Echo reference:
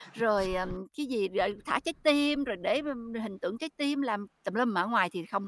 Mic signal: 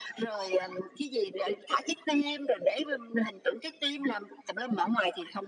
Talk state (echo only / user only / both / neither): echo only